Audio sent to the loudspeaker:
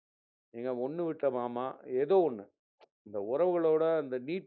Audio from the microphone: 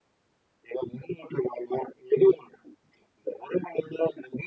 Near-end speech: none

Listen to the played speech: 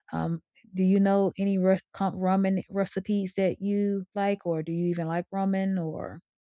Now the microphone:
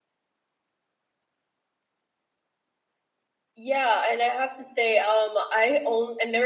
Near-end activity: present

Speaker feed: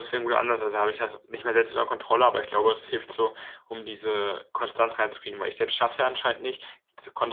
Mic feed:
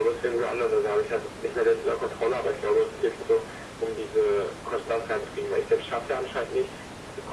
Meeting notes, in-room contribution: none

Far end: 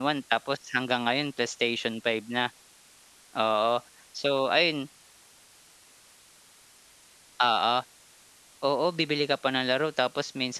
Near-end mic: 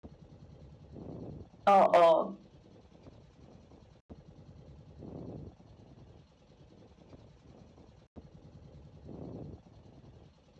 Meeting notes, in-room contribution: present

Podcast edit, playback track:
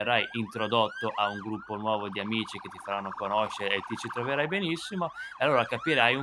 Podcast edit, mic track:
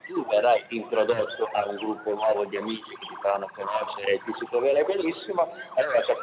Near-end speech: none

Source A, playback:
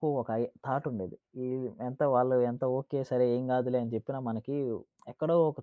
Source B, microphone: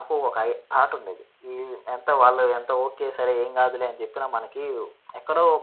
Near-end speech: none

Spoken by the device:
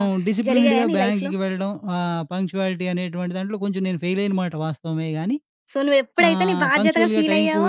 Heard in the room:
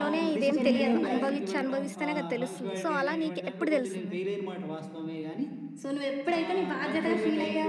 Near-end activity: present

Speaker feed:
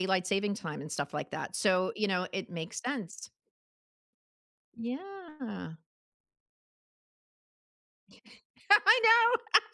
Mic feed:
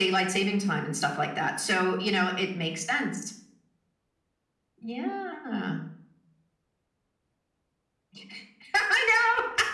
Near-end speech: none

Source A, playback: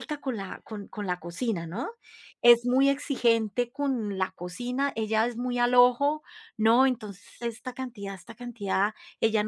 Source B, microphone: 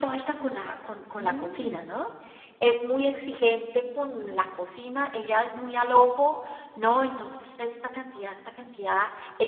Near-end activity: present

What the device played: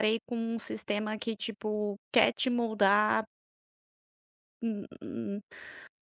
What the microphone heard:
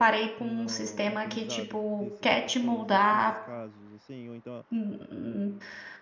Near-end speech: present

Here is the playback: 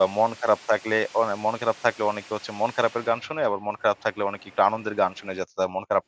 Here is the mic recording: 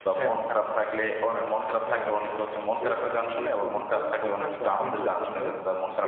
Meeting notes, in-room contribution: present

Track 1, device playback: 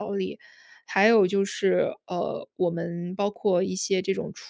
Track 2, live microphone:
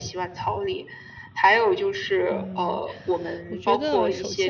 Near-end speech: present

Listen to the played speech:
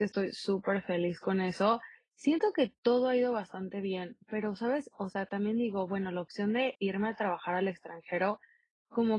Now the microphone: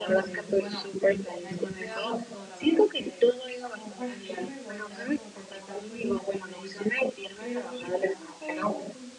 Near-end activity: present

